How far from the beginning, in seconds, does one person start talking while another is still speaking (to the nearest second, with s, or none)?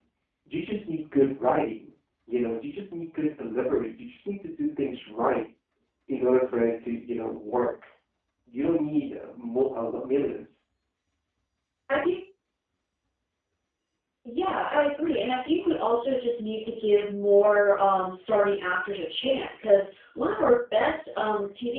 none